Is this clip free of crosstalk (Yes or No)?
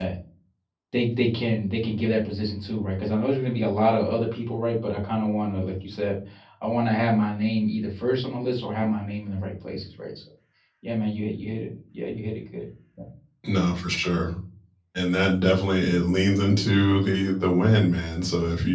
Yes